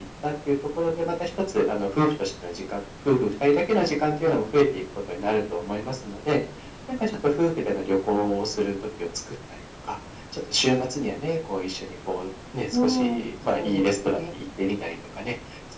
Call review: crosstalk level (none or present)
present